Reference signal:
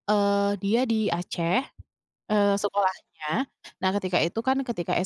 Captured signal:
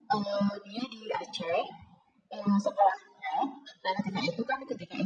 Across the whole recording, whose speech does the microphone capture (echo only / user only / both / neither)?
echo only